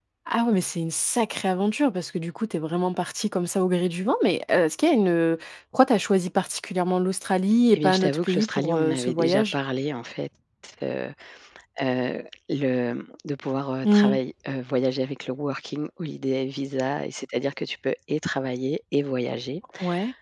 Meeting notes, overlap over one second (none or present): present